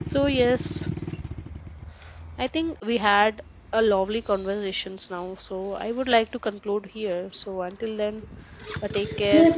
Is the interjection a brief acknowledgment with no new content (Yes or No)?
No